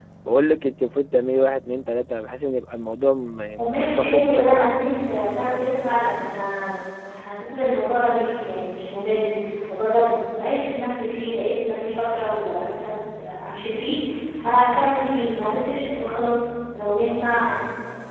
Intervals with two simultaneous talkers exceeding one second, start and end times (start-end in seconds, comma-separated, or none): 3.6-4.9